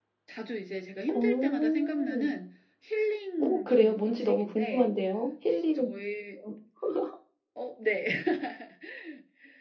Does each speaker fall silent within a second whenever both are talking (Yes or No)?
No